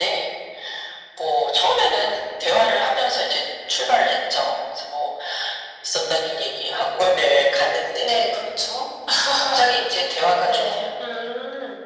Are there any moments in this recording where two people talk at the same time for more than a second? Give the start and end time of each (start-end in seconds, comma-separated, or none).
none